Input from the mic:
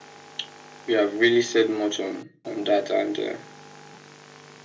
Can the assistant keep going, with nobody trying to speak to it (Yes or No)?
Yes